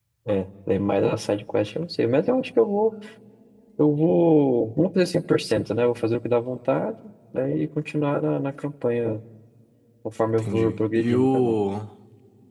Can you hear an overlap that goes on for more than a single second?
Yes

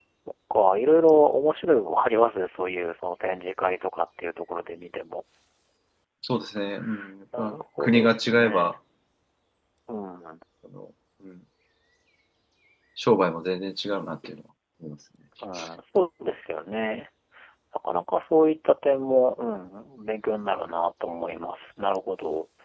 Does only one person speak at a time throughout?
No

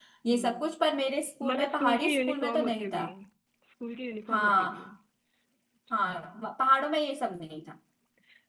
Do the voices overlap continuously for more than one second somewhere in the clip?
Yes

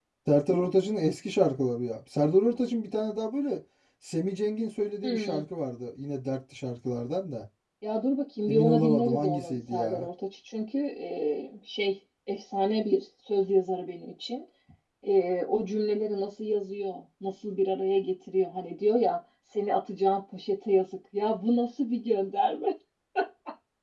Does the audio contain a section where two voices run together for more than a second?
Yes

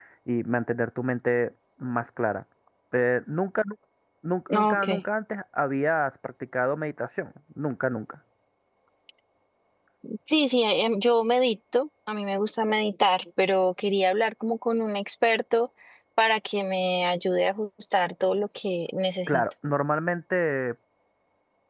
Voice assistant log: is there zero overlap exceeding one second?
Yes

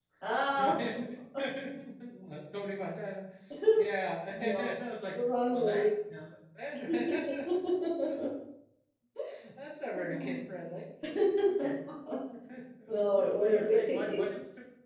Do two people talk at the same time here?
Yes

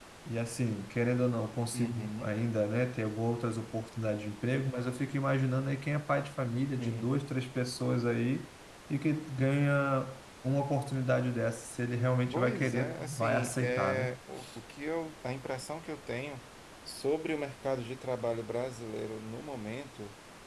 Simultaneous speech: Yes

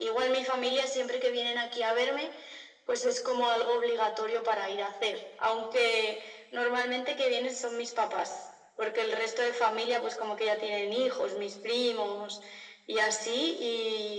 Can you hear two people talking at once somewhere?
No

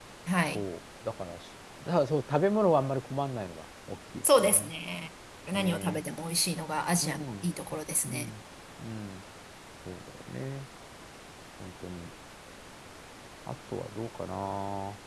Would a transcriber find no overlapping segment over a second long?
Yes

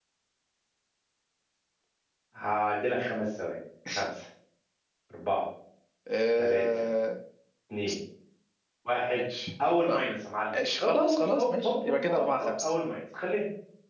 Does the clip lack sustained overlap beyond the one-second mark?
No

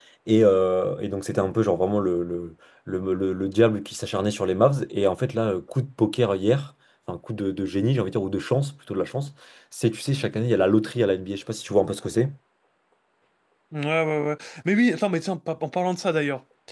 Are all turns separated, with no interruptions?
Yes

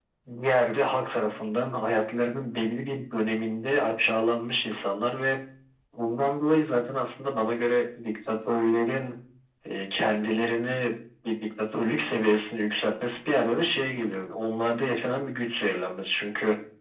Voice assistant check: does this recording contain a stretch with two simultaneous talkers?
No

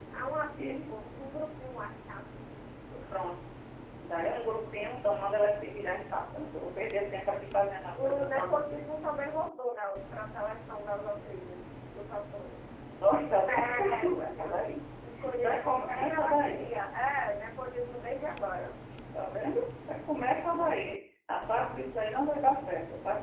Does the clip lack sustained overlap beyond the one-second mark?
No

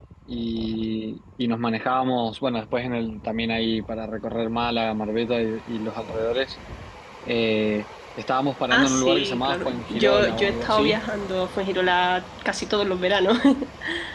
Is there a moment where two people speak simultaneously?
Yes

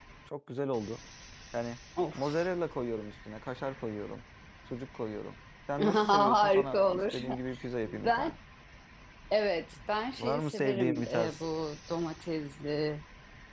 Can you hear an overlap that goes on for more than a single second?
Yes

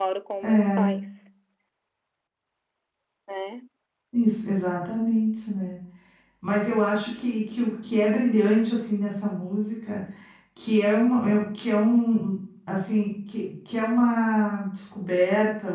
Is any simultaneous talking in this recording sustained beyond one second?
No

